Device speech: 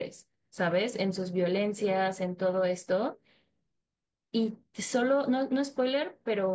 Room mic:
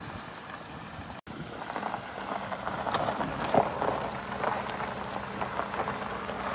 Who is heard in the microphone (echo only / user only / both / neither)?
neither